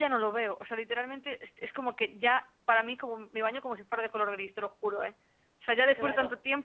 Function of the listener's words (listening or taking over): taking over